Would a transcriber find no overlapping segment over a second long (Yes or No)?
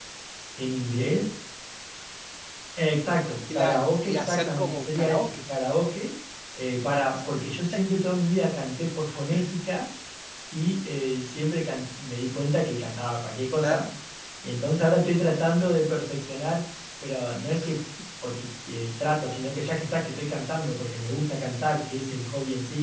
No